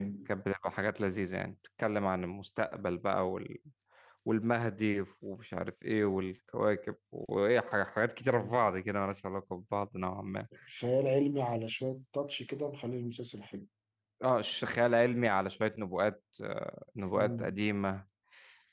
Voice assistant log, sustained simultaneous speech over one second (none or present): none